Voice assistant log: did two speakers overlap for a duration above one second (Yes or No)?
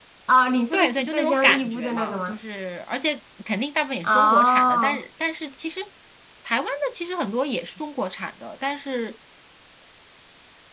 Yes